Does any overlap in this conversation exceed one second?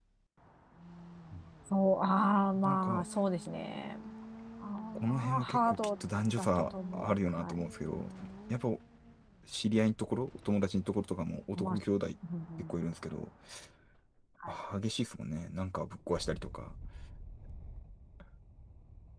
Yes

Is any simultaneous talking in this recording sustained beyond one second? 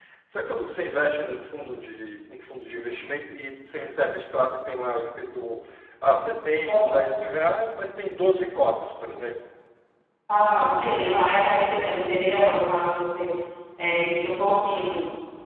No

